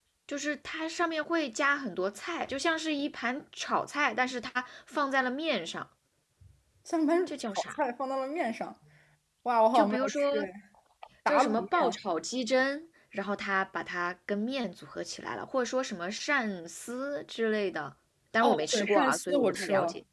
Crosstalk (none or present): present